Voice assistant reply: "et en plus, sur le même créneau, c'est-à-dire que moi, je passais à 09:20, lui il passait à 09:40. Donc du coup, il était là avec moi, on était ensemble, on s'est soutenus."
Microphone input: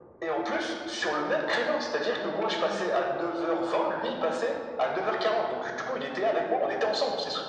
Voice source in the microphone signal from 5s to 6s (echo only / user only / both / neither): echo only